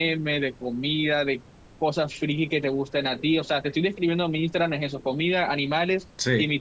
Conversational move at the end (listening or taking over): listening